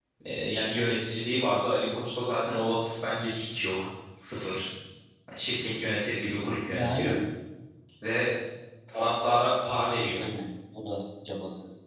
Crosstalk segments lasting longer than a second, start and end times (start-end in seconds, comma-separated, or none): none